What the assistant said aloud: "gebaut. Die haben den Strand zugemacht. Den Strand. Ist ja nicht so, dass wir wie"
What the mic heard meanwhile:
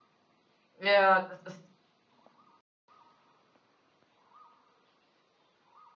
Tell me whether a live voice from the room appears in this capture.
Yes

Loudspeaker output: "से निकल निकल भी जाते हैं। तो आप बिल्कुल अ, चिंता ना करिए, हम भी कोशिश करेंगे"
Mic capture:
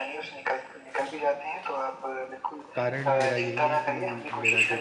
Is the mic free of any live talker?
No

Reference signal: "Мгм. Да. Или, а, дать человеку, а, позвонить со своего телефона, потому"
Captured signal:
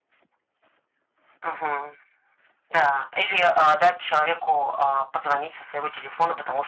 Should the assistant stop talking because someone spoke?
No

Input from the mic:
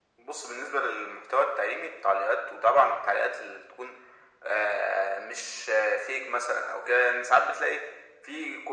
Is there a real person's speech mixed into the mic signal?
No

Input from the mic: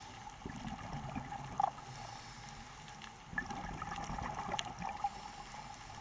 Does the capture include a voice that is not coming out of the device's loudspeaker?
No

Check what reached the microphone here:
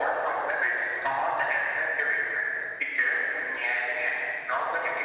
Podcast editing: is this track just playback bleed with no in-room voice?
Yes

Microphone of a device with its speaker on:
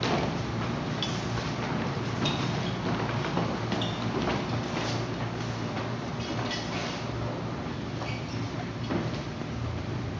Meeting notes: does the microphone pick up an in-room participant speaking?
No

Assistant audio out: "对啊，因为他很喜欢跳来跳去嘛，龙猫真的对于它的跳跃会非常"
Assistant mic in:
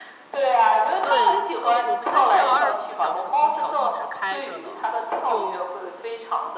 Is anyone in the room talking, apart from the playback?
Yes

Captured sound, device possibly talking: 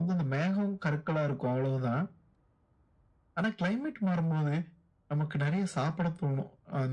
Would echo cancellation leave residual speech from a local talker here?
No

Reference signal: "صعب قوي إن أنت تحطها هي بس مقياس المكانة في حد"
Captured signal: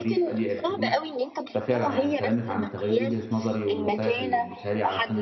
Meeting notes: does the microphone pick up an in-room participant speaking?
Yes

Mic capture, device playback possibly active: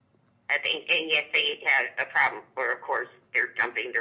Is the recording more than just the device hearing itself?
No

